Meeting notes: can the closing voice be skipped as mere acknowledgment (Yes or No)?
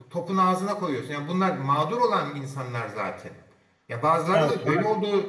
Yes